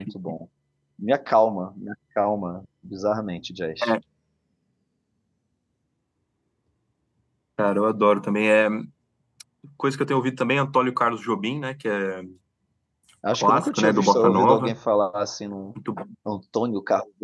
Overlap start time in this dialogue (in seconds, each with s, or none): 13.4 s